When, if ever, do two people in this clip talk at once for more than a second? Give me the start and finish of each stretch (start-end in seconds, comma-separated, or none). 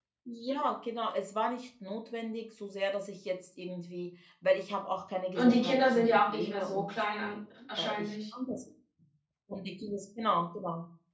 5.4-6.9